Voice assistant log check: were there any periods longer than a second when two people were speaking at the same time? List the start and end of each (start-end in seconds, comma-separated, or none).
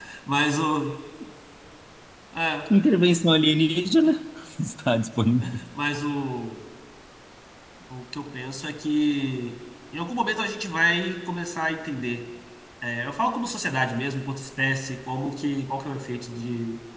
none